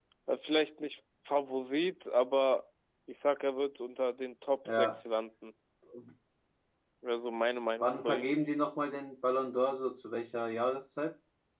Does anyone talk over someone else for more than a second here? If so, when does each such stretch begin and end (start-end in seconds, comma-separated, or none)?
none